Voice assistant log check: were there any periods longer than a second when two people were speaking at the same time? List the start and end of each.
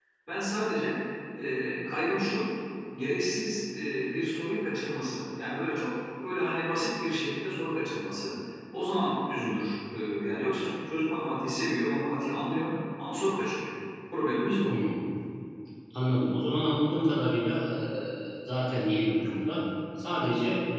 none

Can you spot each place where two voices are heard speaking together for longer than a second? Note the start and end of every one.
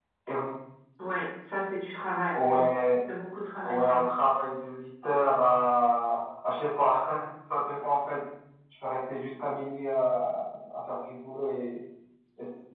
none

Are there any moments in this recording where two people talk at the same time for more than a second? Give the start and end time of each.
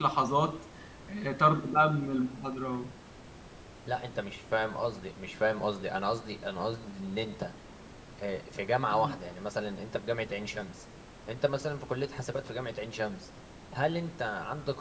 none

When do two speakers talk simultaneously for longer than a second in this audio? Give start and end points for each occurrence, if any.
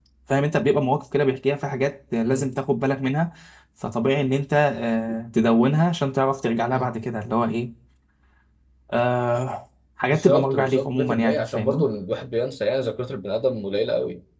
10.0-11.8

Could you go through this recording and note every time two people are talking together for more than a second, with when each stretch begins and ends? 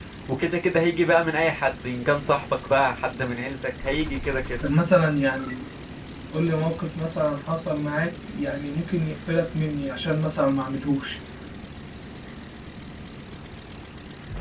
none

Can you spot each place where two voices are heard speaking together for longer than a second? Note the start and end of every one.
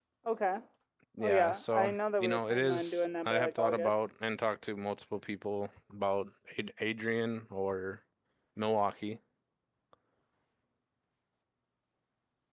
1.2-3.9

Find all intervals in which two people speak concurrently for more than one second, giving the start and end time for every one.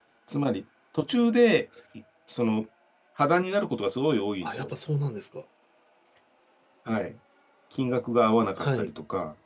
none

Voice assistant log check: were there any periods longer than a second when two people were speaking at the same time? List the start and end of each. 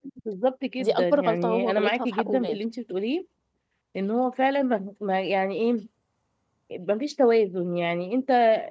0.8-2.6

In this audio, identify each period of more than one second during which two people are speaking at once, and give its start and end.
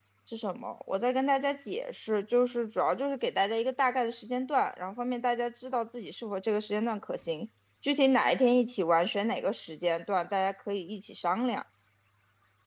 none

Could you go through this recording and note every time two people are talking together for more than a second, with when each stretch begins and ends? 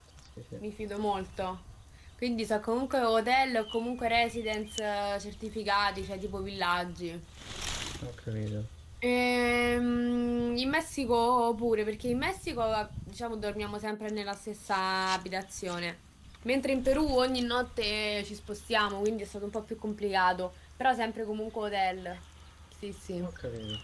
none

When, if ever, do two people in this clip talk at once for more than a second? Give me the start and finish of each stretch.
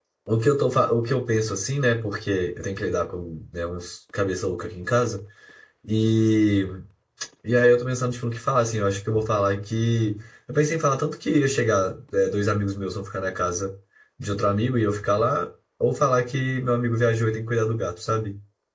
none

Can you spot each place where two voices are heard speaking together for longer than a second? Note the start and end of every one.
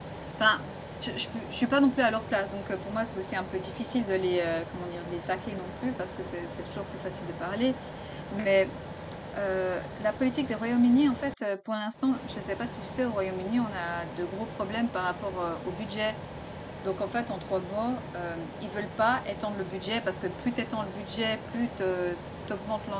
none

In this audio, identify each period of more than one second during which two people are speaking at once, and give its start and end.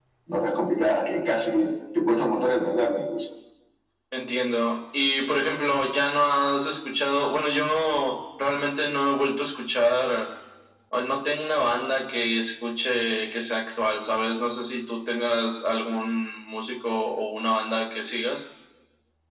none

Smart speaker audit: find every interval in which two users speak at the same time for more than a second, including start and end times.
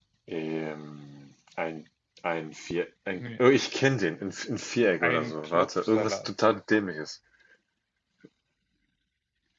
5.0-6.3

